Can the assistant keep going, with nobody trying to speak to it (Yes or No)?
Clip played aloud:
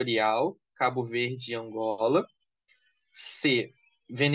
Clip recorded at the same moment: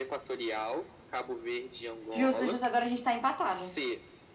No